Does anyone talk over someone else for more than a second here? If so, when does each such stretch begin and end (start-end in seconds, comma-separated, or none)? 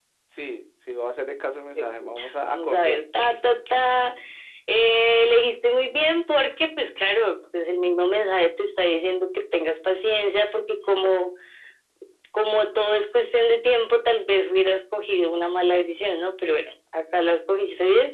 1.8-3.0